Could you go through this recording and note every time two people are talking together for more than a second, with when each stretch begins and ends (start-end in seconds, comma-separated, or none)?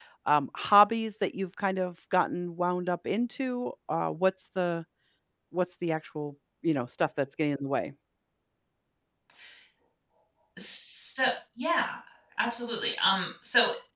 none